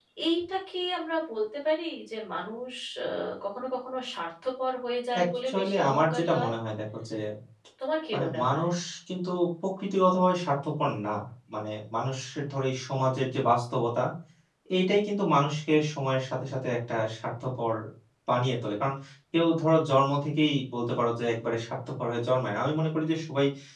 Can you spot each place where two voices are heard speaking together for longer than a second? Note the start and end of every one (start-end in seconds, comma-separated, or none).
5.1-6.5